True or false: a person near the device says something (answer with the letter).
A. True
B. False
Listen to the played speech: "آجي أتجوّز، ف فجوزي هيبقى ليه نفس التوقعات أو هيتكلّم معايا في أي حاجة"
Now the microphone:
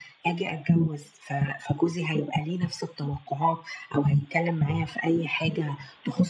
B